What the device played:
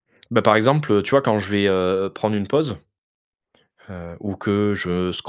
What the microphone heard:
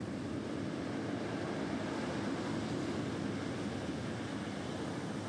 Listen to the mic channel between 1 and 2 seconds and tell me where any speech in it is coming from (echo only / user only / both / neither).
neither